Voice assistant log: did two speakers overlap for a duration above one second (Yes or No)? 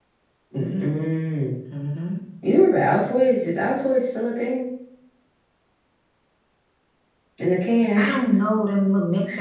No